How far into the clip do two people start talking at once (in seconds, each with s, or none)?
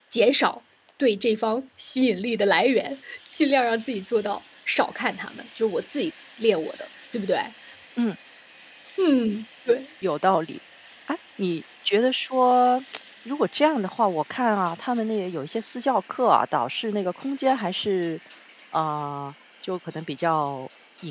none